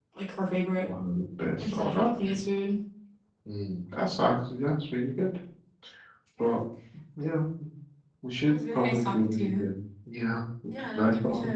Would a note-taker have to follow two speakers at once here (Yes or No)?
Yes